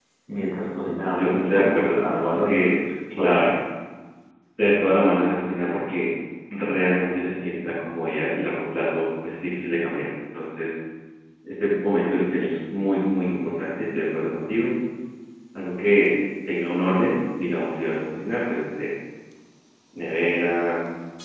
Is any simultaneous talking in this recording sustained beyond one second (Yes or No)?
Yes